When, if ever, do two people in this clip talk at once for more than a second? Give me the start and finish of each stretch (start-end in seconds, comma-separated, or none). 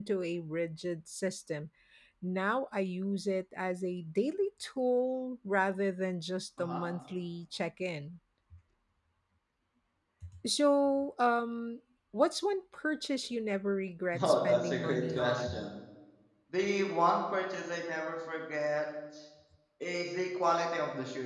14.2-15.7